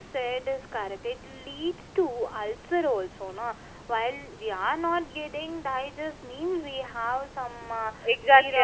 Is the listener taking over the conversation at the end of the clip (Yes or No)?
Yes